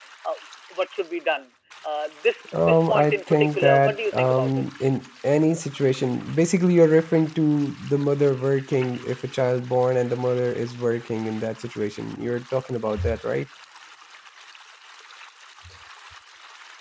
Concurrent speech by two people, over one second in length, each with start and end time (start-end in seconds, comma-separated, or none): 2.6-4.6